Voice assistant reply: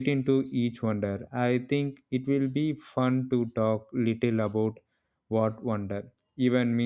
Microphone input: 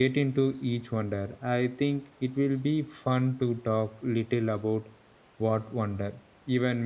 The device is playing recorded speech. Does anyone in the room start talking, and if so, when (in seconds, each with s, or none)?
none